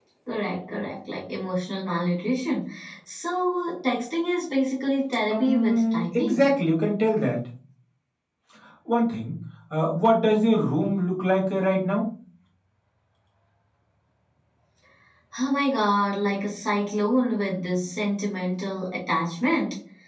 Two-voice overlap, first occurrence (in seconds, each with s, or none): 5.3 s